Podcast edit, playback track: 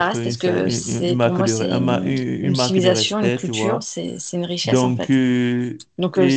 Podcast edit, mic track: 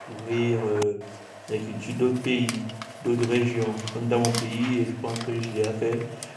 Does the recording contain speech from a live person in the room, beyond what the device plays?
Yes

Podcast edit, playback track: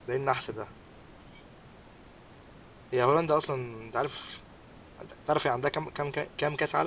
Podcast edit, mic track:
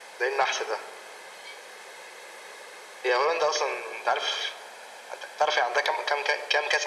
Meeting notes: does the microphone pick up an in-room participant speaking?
No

